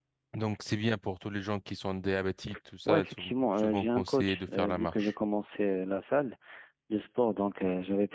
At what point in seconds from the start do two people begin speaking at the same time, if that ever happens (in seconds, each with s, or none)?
2.9 s